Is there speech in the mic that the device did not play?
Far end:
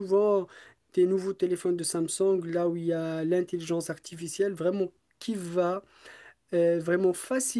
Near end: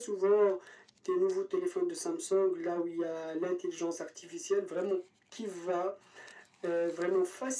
No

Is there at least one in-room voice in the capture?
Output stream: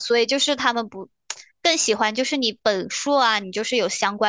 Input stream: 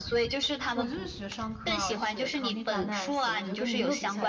Yes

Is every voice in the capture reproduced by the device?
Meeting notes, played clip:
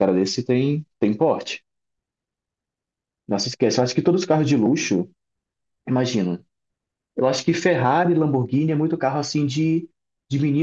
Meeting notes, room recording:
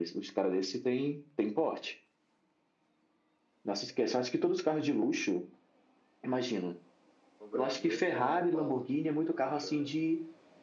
No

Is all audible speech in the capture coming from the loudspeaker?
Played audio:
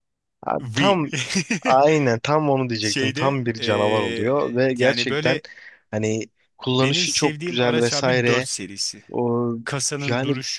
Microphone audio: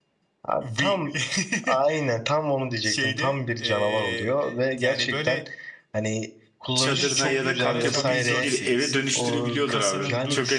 No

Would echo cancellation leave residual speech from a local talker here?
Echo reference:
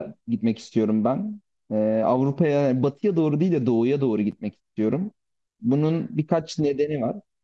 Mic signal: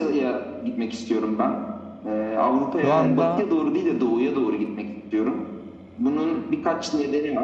Yes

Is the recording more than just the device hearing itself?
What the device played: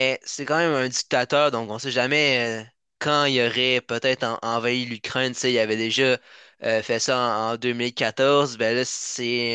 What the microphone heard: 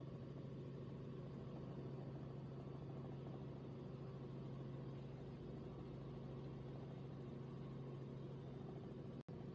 No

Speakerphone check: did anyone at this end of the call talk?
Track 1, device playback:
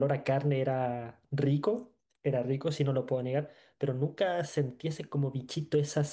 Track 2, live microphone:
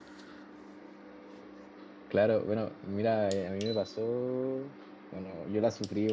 Yes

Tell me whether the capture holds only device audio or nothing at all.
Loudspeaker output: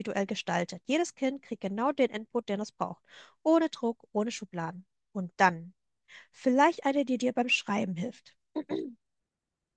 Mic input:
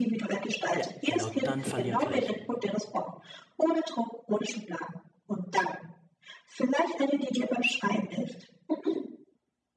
No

